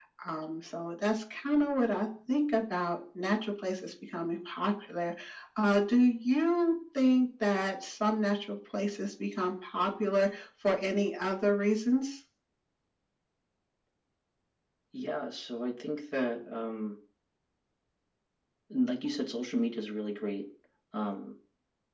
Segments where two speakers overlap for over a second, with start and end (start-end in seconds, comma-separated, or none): none